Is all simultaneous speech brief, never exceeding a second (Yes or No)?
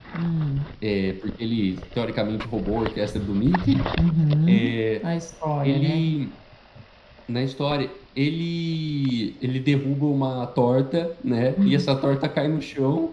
Yes